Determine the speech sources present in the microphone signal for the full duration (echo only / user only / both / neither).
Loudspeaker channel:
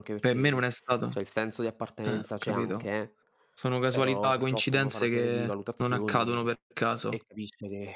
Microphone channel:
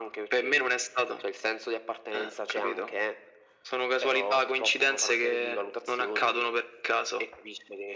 echo only